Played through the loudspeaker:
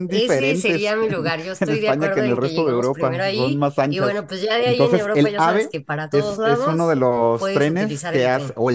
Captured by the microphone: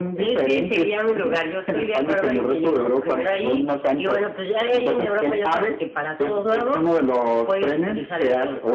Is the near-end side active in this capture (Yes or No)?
No